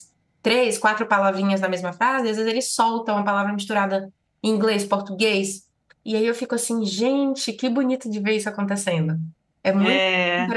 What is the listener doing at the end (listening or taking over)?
listening